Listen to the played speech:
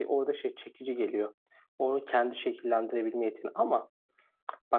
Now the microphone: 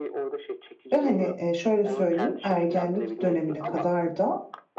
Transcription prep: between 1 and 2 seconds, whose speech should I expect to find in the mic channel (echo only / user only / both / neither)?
both